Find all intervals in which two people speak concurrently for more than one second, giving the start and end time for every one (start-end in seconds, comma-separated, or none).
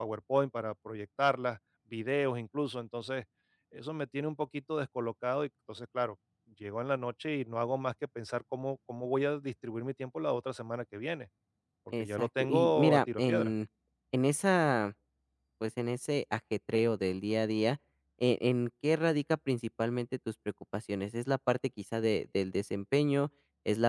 12.0-13.5